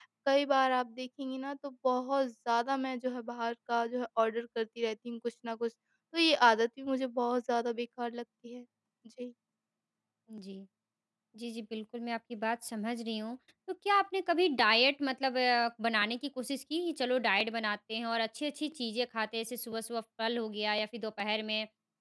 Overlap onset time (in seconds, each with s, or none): none